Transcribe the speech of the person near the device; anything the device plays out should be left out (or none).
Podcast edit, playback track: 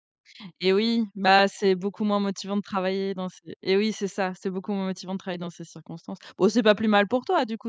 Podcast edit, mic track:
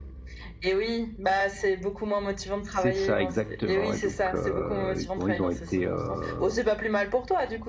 c'est ça exactement et donc heu et bon, ils ont été, heu,